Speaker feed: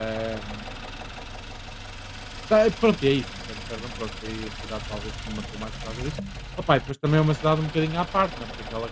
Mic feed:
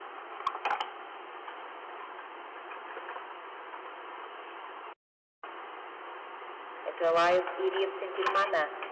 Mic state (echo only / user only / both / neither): user only